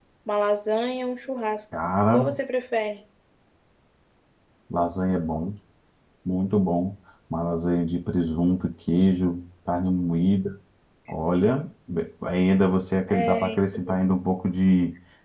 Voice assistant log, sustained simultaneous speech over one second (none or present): none